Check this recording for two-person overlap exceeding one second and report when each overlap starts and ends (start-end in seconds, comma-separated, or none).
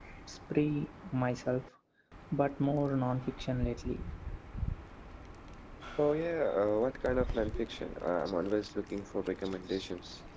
none